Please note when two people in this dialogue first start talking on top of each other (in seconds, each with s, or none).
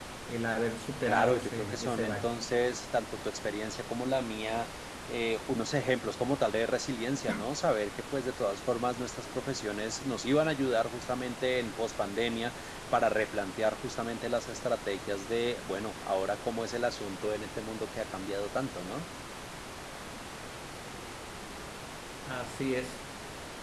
1.1 s